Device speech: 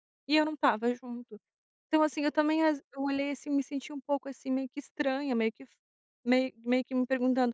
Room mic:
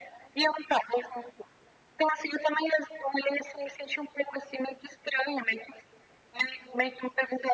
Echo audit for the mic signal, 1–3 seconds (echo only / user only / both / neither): echo only